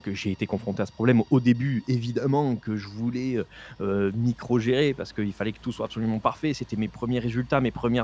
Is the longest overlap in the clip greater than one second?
No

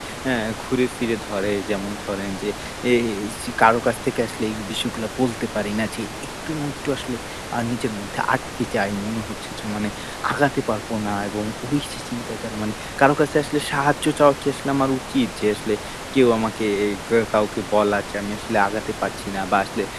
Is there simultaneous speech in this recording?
No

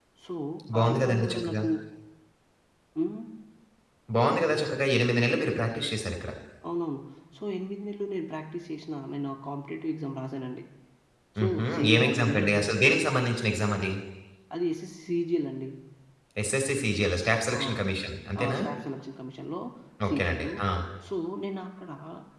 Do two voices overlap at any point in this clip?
Yes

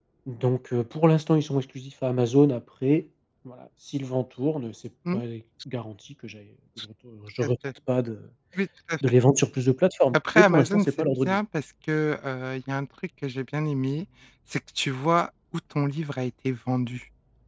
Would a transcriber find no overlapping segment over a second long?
No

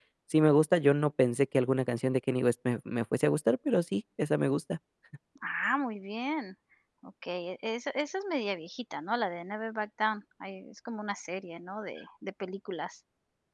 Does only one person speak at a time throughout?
Yes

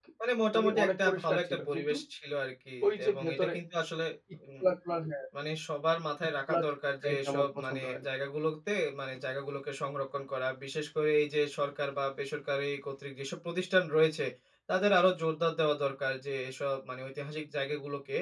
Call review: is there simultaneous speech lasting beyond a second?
Yes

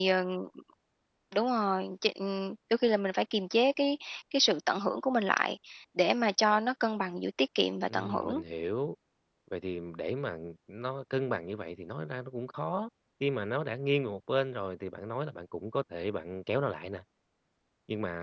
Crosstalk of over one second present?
No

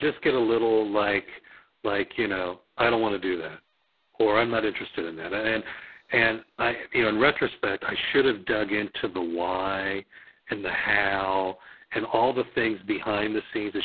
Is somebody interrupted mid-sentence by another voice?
No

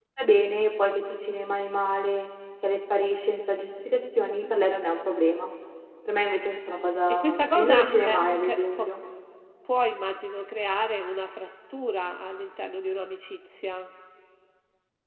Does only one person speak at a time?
No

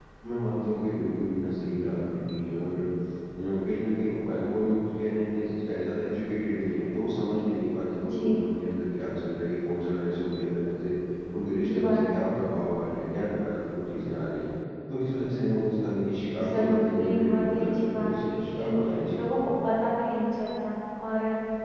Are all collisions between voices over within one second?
No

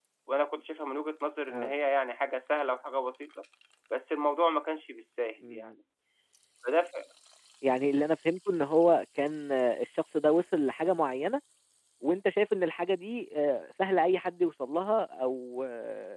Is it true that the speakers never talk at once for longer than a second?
Yes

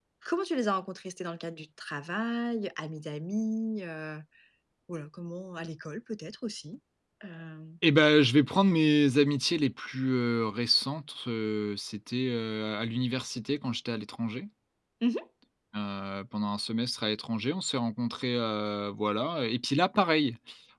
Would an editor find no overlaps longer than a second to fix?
Yes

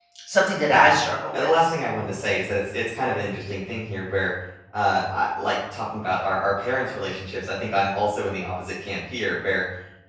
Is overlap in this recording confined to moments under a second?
Yes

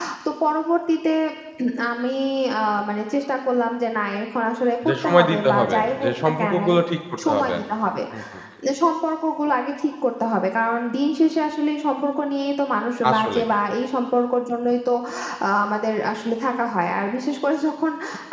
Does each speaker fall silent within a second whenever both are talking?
No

